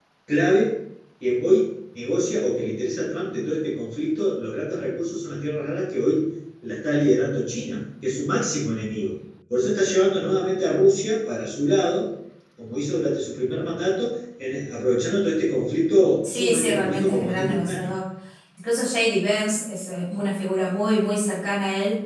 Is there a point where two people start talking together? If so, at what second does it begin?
16.2 s

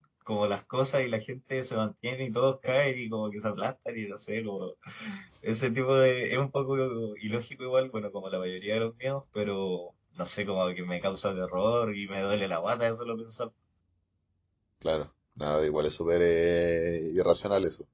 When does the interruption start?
none

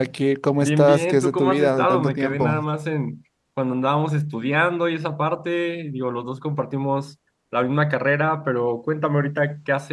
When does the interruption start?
0.6 s

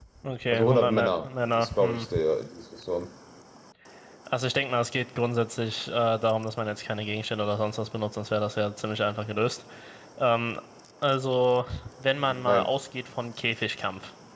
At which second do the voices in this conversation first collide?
0.5 s

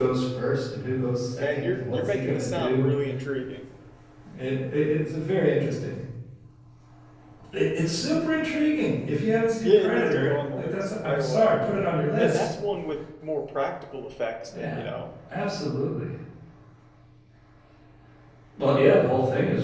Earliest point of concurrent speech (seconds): 1.4 s

